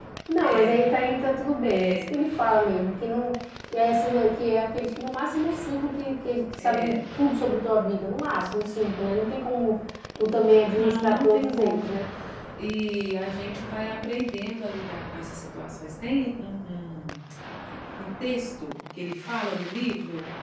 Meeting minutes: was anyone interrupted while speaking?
Yes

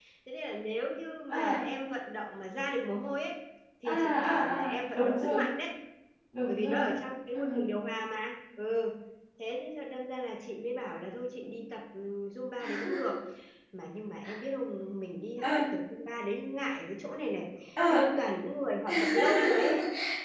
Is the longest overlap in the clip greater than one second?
Yes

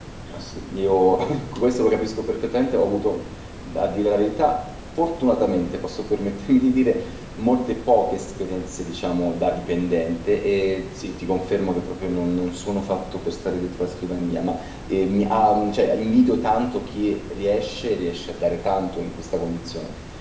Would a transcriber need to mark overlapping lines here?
No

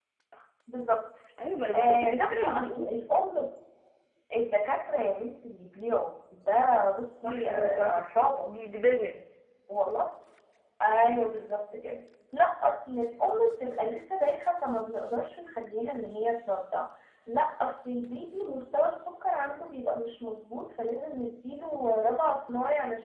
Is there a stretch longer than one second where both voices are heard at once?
Yes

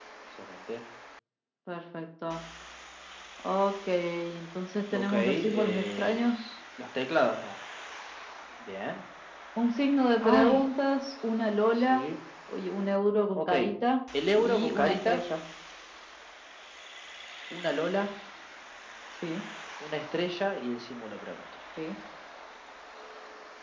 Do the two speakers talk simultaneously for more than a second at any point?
Yes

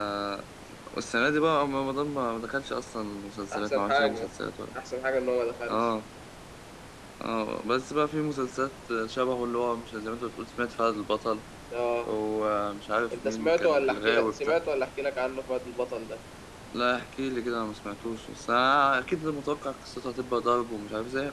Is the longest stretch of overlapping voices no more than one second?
No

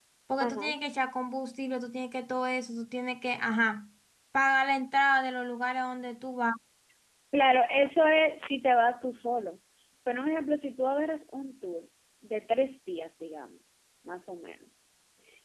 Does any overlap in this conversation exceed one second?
No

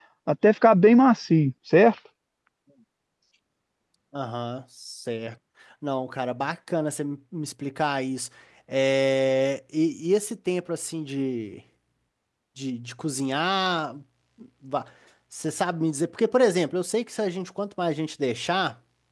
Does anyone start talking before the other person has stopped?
No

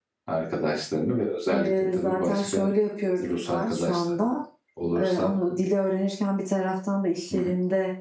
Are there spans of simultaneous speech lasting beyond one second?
Yes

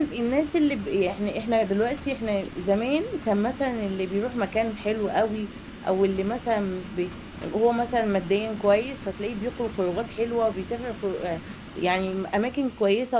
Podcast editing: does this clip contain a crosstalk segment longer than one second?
No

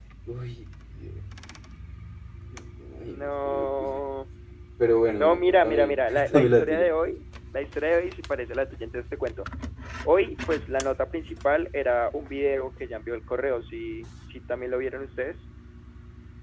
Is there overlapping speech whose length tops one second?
Yes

